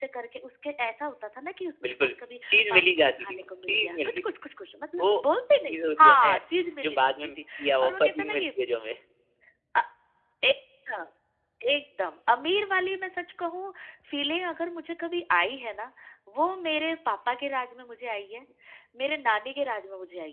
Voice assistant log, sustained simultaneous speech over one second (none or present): present